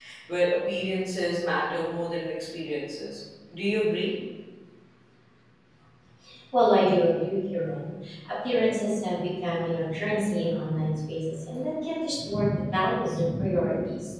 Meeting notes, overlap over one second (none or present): none